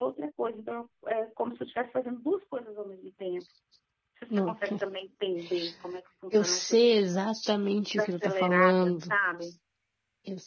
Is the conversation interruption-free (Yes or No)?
No